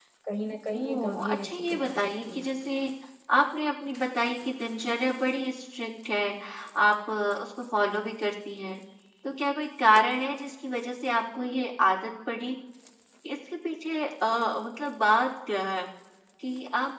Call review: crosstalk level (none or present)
present